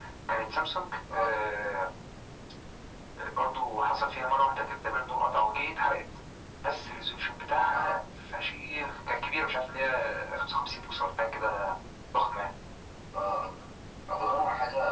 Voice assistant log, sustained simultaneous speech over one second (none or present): none